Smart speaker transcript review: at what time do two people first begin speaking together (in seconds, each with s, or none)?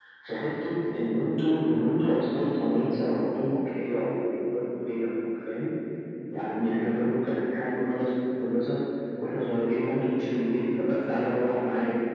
none